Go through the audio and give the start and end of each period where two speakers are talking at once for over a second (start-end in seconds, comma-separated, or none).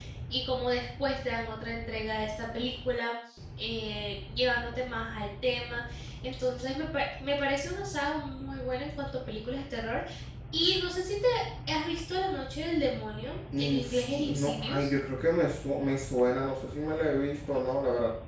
13.6-14.9